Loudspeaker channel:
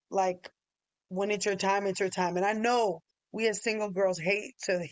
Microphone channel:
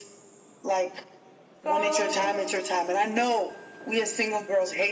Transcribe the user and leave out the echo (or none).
So,